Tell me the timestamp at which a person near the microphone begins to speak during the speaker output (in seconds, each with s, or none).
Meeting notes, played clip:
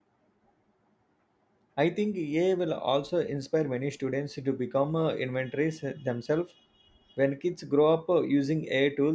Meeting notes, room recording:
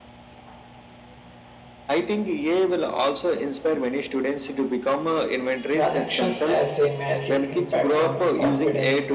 5.7 s